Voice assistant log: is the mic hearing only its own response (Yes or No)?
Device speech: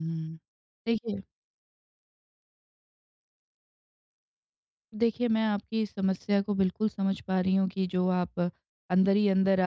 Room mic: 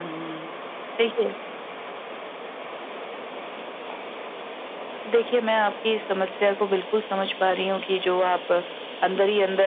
Yes